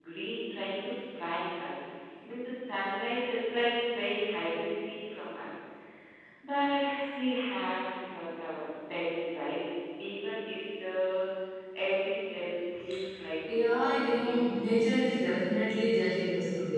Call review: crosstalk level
present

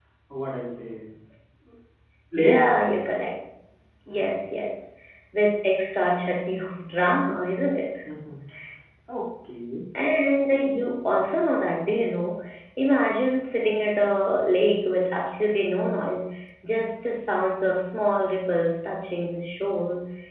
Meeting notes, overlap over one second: none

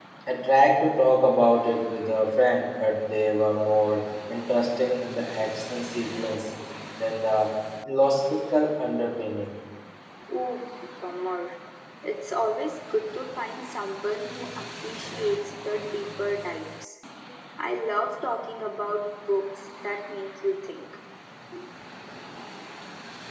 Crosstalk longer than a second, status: none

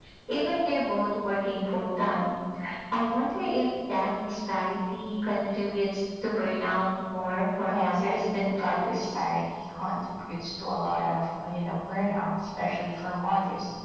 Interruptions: present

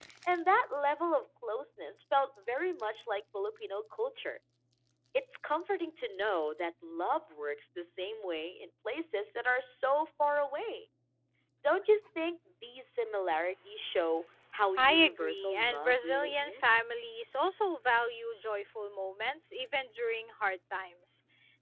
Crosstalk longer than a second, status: present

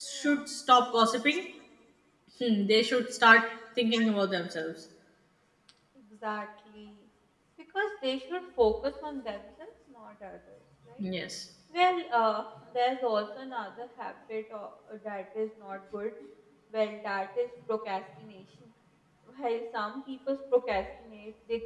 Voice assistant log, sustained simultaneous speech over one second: none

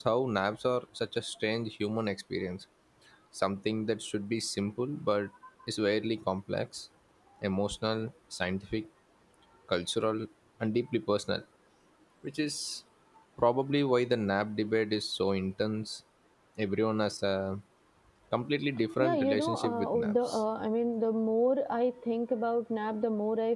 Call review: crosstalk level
present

